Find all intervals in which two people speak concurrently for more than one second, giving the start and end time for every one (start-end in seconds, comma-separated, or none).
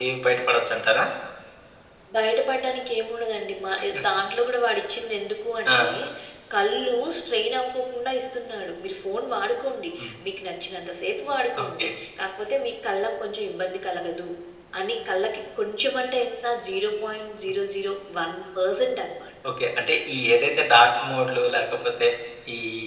none